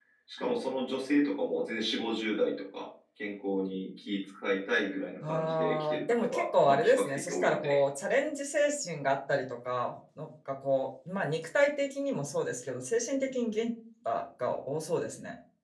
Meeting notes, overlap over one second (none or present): present